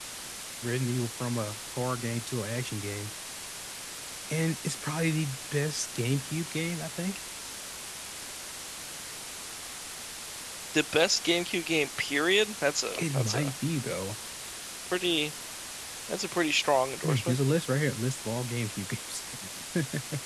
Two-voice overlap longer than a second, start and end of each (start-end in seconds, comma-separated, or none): none